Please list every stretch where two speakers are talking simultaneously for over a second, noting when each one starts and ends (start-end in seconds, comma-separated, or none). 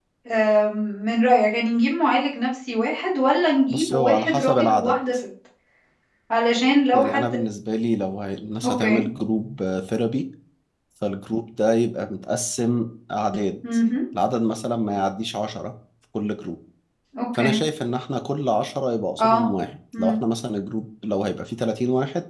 3.7-5.0